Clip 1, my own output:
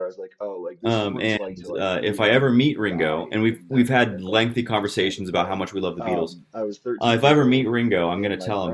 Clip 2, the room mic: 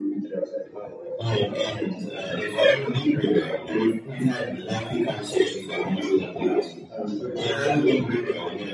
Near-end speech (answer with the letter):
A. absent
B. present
A